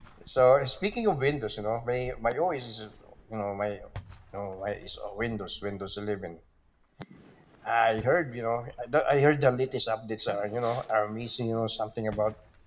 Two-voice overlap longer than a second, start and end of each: none

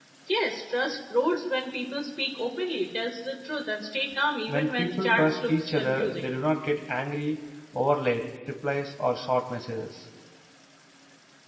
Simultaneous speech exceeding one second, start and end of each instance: 4.5-6.3

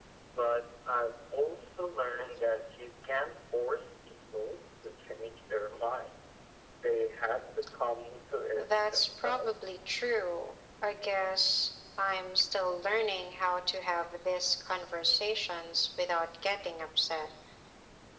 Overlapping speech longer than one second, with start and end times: 8.6-9.8

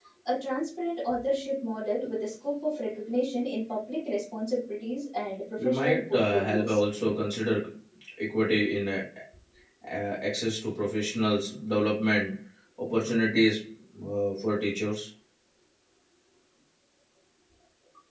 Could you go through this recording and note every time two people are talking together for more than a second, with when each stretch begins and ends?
5.6-6.8

